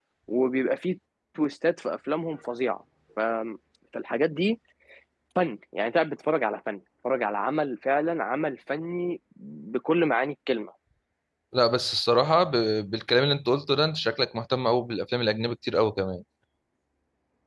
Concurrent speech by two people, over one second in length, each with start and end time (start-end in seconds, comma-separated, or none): none